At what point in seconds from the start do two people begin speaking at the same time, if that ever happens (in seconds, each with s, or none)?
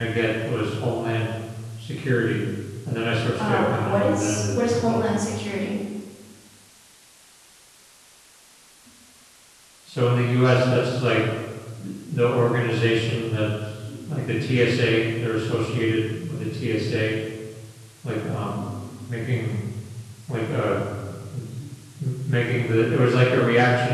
3.4 s